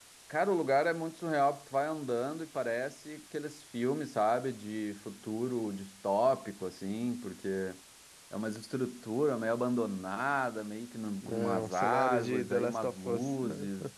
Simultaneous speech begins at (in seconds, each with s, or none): 11.2 s